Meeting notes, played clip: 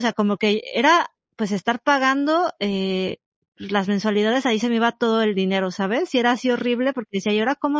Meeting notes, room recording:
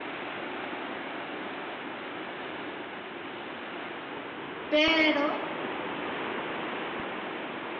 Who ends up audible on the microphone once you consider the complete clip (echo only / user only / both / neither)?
user only